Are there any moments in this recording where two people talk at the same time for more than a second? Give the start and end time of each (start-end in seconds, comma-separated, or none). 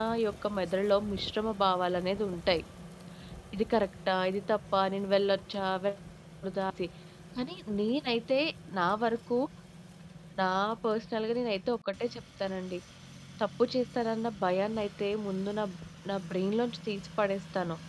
none